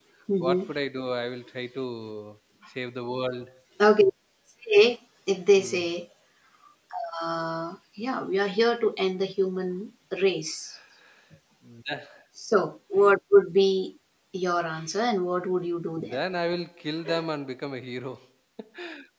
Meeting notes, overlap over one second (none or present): none